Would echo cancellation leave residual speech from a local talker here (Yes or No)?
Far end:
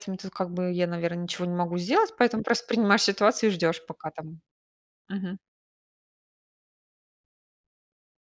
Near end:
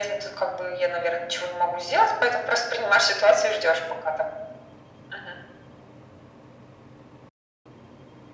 No